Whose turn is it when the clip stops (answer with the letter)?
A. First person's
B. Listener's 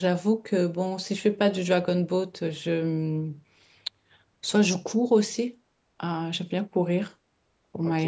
B